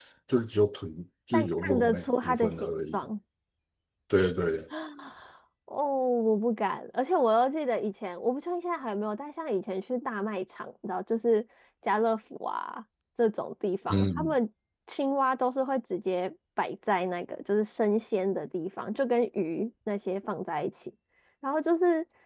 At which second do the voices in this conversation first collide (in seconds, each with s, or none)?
1.3 s